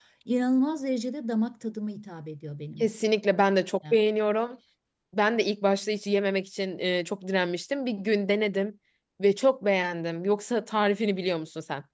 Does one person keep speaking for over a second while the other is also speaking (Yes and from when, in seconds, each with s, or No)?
No